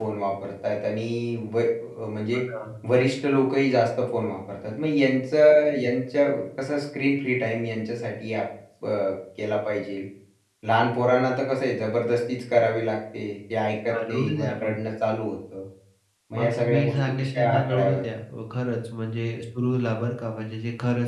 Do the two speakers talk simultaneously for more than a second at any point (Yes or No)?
Yes